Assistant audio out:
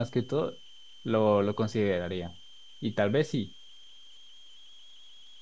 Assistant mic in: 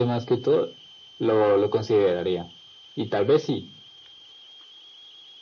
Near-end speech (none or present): none